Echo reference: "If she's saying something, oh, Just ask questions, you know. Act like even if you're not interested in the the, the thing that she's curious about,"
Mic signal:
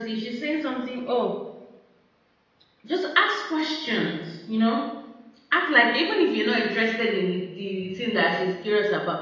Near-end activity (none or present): none